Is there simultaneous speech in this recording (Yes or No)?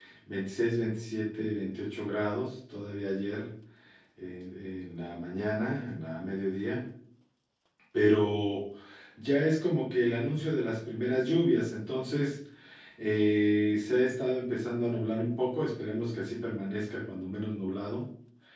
No